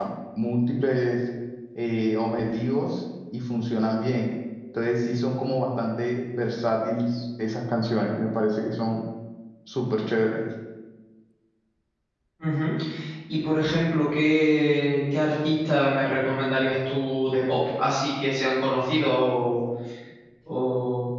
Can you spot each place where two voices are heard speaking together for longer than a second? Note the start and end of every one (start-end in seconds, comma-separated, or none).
none